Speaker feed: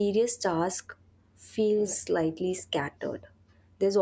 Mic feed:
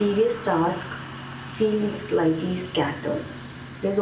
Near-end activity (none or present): none